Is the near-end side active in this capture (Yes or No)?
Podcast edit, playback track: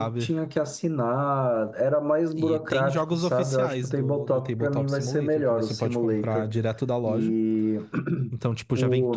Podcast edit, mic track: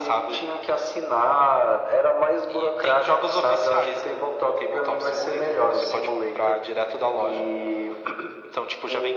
No